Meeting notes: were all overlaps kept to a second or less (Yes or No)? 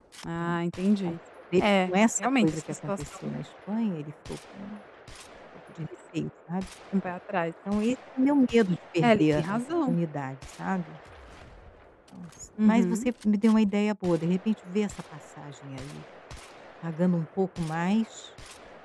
No